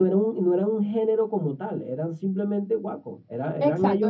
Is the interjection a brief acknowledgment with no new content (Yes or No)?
No